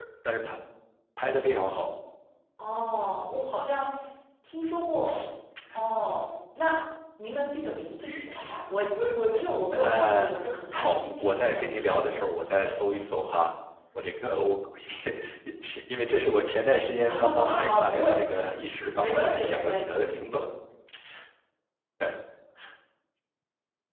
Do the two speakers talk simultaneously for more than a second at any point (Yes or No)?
Yes